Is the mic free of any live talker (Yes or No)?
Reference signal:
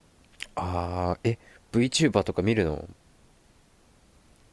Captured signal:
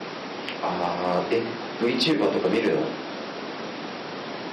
Yes